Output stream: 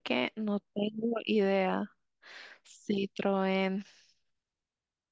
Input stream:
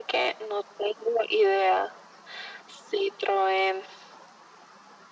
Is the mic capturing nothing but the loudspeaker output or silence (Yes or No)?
Yes